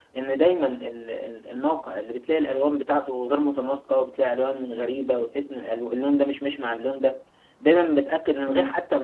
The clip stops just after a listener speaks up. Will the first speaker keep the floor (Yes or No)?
Yes